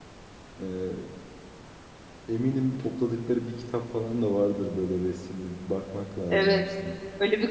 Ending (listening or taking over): taking over